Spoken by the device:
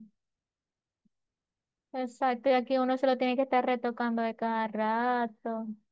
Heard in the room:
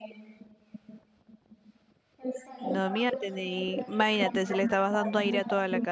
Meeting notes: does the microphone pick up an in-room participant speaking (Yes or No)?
Yes